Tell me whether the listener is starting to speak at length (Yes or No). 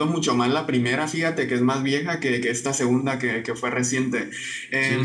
No